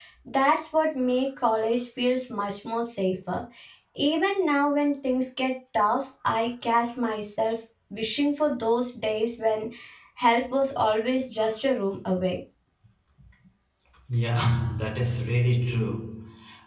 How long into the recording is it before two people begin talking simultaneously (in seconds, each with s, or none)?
none